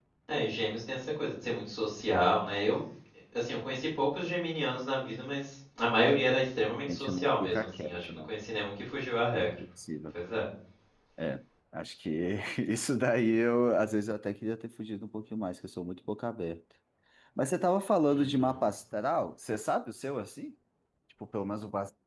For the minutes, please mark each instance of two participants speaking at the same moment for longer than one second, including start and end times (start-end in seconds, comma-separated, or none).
6.9-8.3